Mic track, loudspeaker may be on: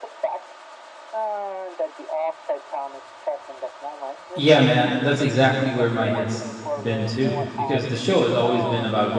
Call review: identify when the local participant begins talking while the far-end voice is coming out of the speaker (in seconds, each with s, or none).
4.3 s